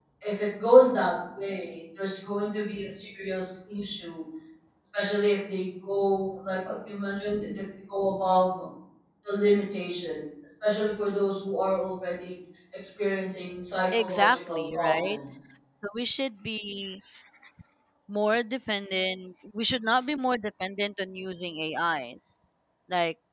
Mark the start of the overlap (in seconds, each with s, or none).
13.9 s